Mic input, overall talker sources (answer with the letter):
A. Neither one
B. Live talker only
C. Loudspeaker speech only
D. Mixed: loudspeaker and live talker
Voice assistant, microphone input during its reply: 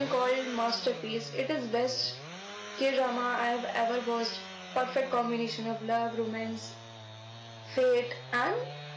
C